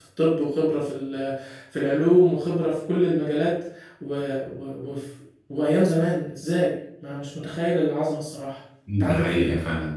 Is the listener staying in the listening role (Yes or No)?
No